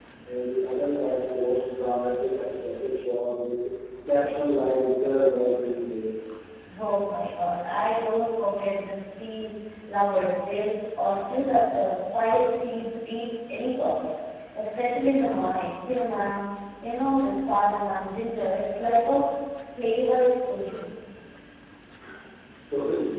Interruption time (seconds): none

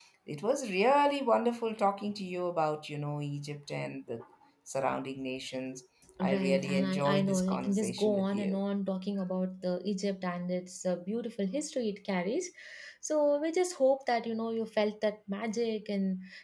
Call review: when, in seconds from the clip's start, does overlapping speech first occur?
6.2 s

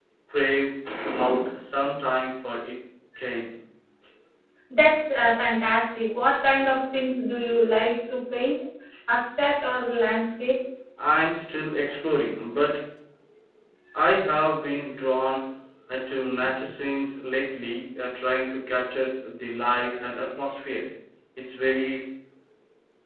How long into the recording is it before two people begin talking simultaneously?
none

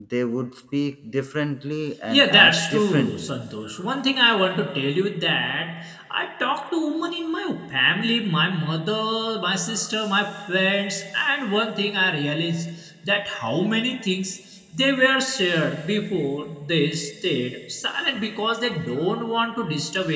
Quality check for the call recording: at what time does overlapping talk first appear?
2.1 s

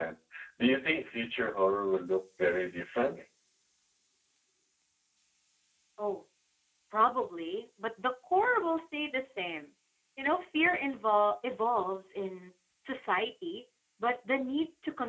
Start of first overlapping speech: none

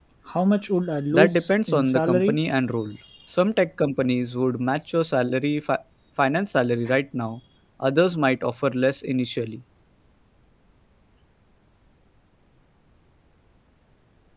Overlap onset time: 1.1 s

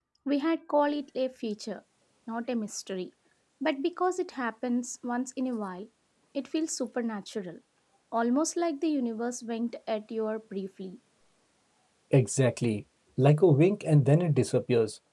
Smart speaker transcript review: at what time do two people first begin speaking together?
none

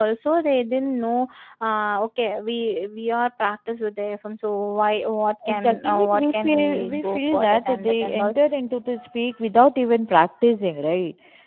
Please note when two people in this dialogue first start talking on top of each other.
5.4 s

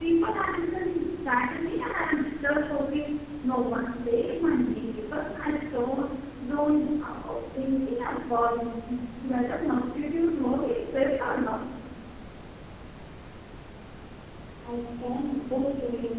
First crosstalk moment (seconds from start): none

